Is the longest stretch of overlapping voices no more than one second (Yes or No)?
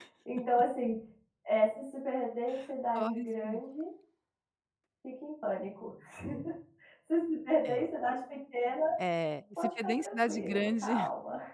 No